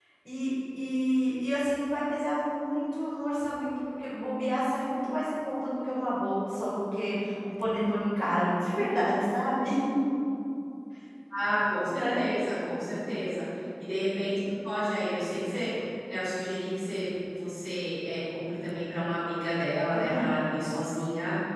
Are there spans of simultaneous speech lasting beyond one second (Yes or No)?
No